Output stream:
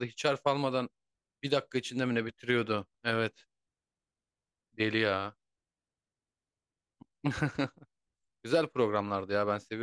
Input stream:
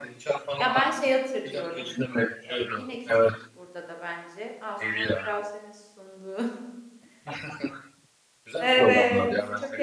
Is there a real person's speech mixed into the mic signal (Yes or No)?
Yes